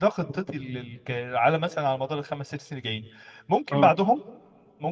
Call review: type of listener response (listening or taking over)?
listening